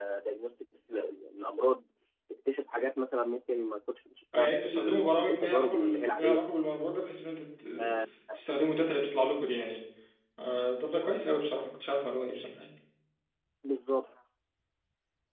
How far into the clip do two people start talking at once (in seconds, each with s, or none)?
4.3 s